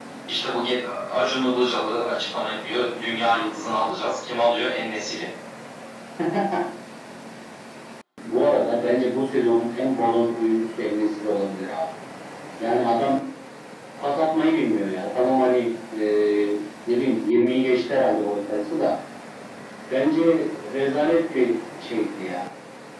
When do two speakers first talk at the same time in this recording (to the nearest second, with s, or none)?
none